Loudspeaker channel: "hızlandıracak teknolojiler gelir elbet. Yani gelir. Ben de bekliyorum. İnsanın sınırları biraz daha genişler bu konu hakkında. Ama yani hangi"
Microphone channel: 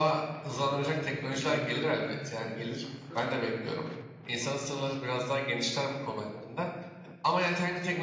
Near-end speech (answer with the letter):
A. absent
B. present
B